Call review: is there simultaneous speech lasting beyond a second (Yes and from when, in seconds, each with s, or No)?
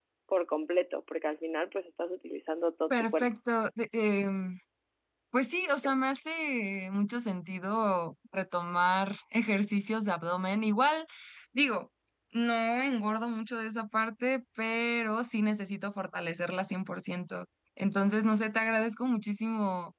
No